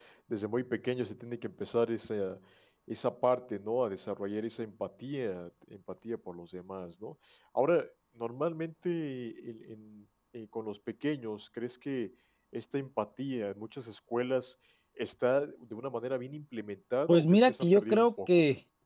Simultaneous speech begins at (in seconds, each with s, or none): 17.1 s